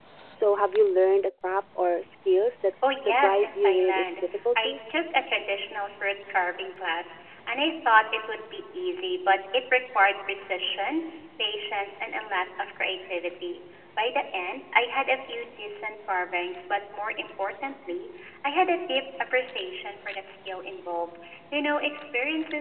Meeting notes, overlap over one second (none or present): present